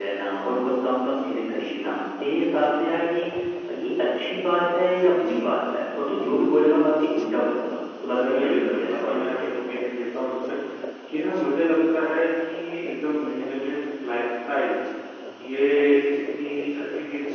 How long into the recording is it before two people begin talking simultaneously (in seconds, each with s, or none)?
8.2 s